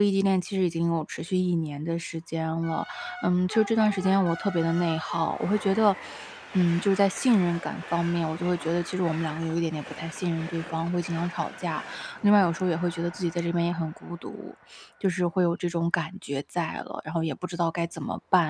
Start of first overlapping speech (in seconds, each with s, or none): none